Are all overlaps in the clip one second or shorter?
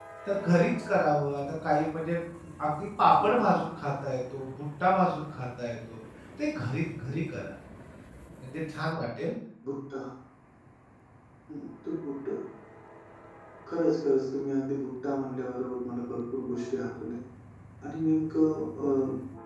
Yes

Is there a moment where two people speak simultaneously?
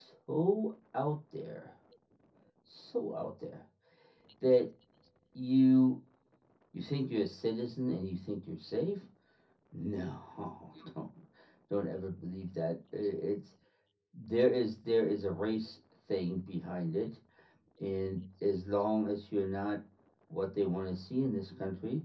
No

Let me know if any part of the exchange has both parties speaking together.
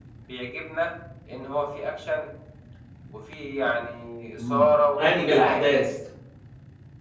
Yes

